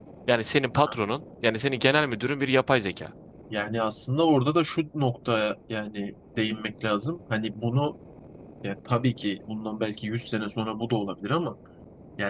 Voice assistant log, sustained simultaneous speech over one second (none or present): none